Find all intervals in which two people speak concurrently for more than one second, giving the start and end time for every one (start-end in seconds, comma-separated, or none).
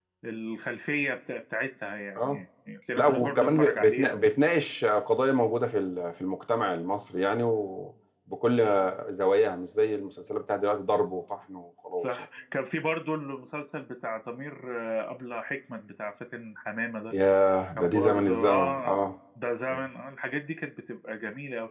3.0-4.3, 17.8-19.0